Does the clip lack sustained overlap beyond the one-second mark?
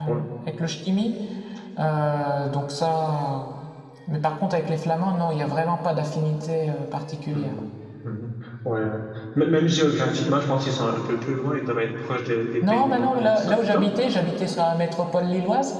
No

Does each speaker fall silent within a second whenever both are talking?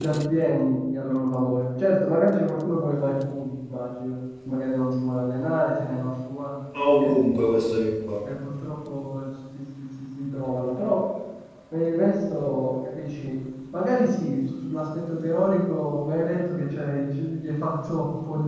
Yes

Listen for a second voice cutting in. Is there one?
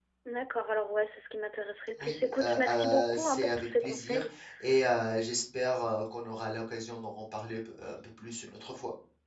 Yes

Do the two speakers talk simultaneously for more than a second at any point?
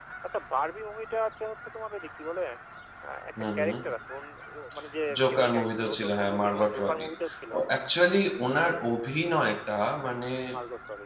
Yes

